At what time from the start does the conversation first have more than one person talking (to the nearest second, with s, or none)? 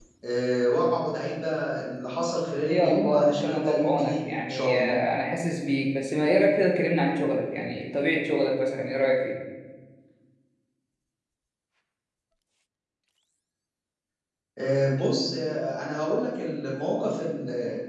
3 s